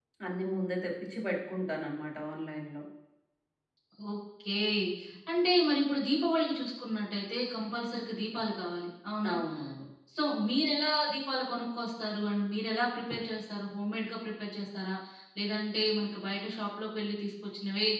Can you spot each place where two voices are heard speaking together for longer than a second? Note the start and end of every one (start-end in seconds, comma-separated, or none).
none